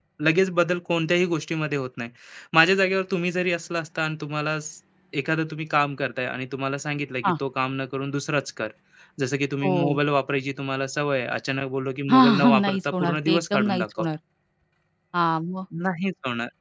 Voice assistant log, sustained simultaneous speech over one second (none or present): present